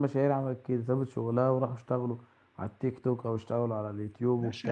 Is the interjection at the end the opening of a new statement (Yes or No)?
Yes